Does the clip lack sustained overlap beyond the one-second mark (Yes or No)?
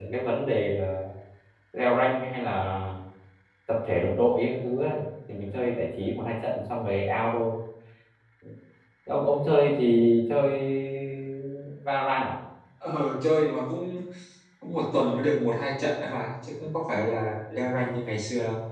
Yes